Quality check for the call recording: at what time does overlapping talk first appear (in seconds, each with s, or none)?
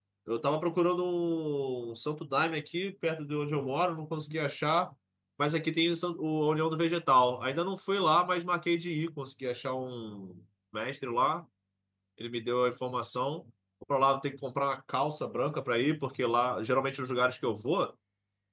none